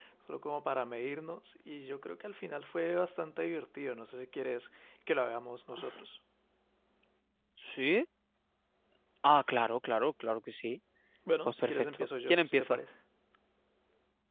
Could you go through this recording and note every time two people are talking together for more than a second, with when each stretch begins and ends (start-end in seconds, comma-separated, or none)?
11.4-12.8